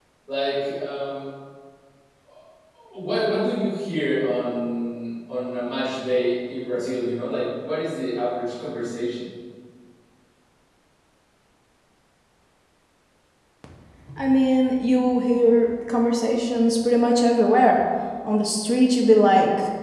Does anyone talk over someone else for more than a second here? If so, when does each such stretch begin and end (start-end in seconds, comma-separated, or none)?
none